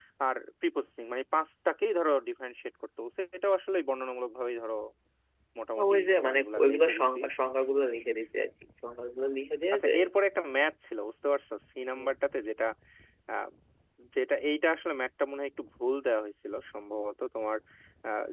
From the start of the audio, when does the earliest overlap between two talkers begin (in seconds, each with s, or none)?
5.8 s